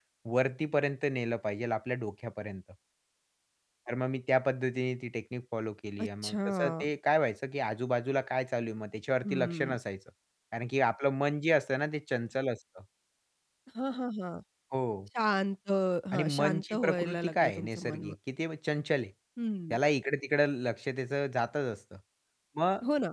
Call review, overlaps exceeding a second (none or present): present